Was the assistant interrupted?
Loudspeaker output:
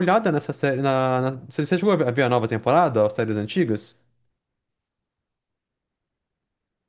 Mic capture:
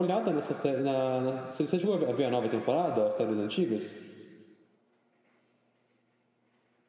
No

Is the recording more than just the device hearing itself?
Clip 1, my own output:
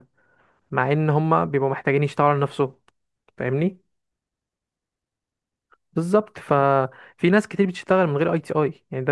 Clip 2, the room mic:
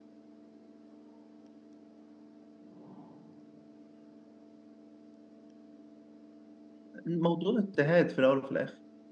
Yes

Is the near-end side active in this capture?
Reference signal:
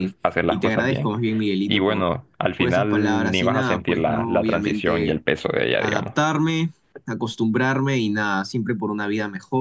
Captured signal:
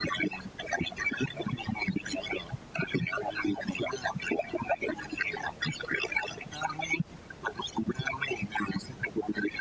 No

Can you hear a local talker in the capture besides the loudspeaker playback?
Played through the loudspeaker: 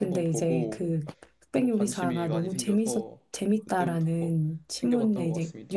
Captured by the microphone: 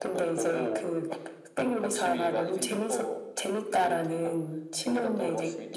No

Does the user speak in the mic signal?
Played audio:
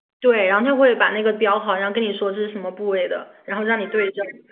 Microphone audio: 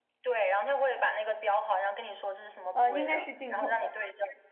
Yes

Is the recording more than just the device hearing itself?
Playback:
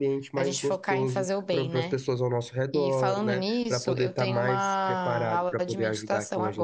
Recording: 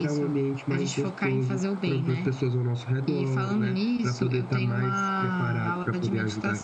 No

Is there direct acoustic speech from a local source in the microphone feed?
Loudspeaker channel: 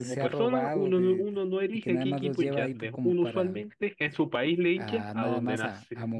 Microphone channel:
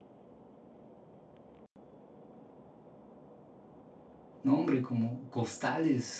Yes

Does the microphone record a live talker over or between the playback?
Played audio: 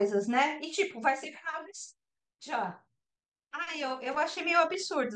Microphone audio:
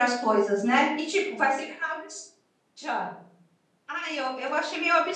No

